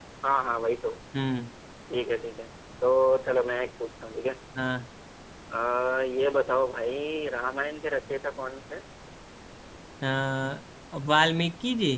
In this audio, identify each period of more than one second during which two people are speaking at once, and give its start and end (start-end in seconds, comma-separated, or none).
none